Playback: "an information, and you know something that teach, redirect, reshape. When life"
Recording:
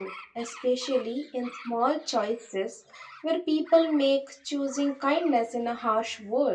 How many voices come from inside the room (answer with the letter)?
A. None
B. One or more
B